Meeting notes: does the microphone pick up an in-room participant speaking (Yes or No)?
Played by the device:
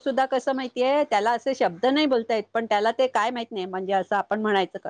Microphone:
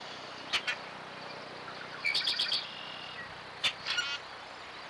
No